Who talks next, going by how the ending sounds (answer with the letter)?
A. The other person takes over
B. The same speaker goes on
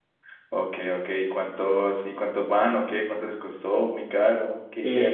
A